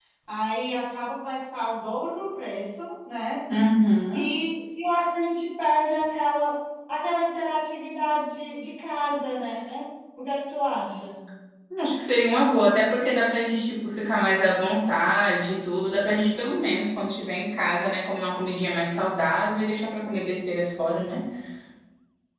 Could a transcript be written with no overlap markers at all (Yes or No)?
Yes